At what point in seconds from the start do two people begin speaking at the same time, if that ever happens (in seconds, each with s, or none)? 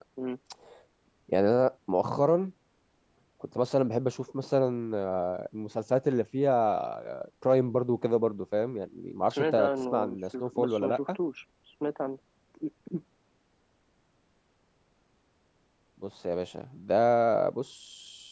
9.3 s